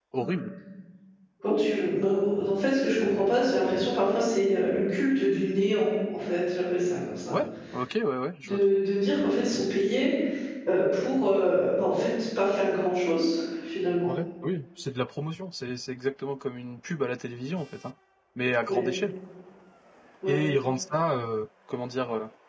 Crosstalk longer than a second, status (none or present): none